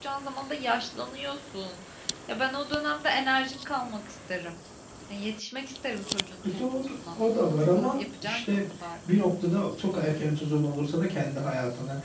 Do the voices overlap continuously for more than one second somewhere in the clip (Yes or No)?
Yes